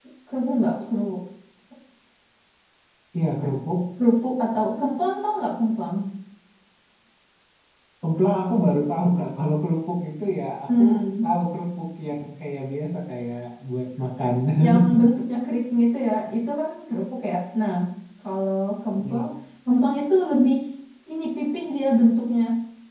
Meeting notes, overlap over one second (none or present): none